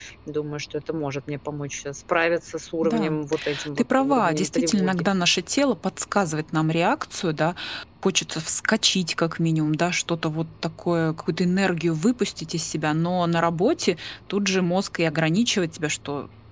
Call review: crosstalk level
present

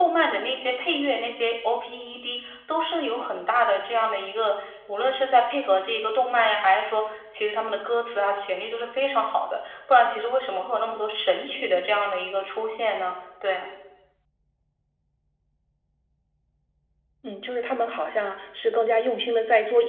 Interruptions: none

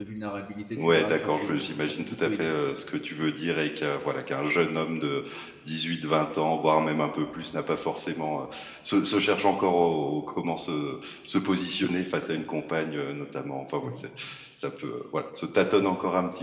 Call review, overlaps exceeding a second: present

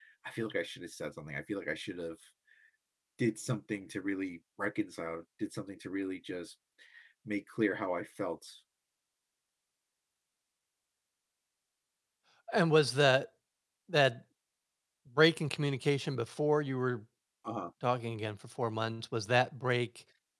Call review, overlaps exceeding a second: none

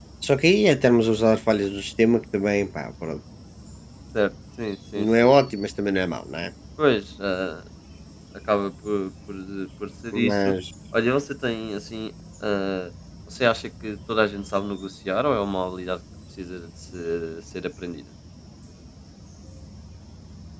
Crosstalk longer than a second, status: none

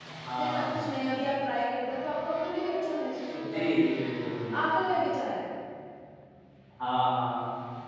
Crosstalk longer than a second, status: none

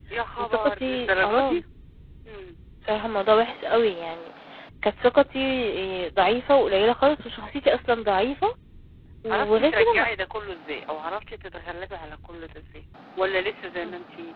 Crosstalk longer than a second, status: present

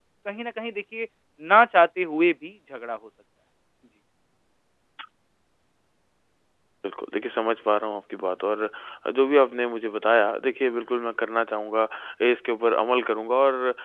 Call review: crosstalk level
none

